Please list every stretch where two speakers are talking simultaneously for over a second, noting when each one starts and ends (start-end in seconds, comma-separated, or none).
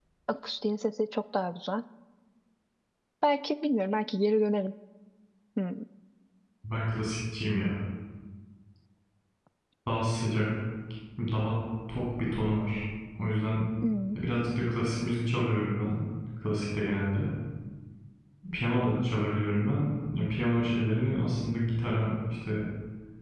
none